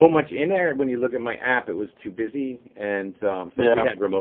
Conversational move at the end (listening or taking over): listening